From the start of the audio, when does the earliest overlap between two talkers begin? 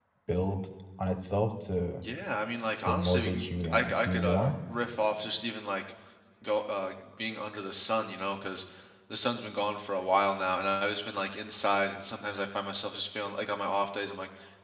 3 s

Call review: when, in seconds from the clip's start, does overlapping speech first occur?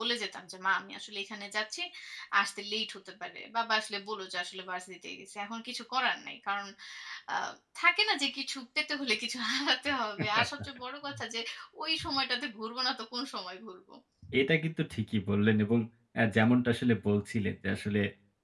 none

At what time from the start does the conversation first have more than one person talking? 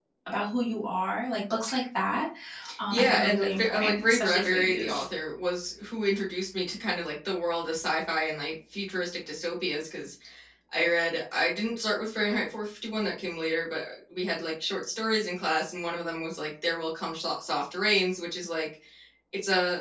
3 s

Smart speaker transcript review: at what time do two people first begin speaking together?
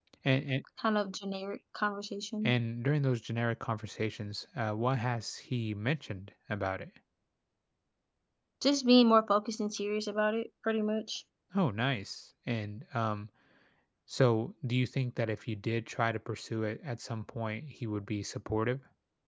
none

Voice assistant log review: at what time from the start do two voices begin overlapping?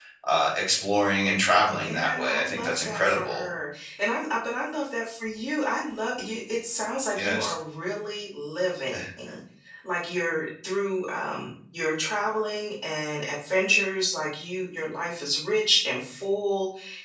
2 s

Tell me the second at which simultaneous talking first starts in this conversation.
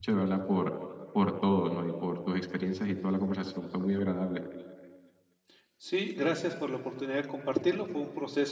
none

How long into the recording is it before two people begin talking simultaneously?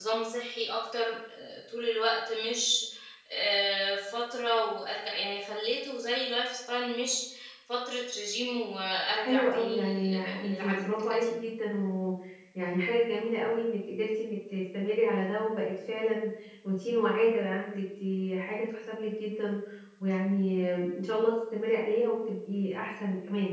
9 s

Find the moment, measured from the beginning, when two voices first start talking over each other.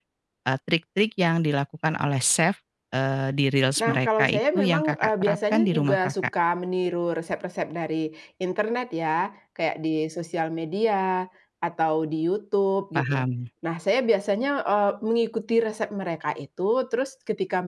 4 s

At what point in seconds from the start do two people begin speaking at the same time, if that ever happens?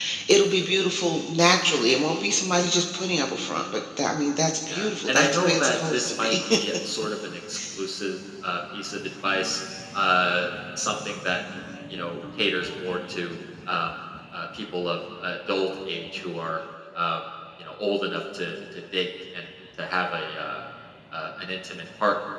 5 s

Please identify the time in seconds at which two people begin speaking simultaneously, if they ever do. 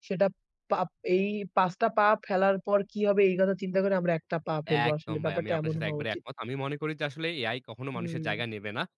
5 s

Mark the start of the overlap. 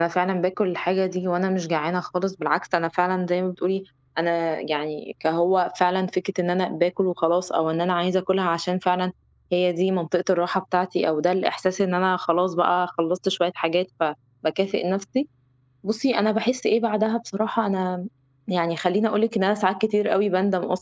none

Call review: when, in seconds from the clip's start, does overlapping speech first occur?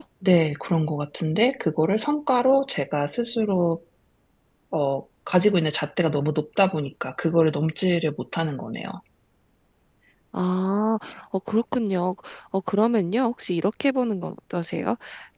none

